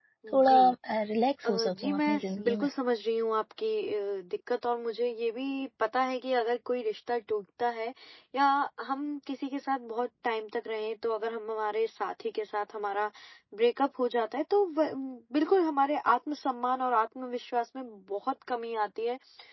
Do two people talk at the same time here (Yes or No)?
Yes